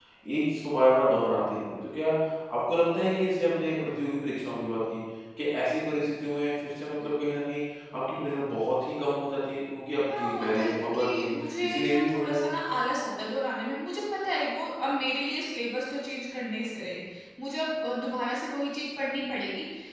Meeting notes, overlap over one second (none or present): present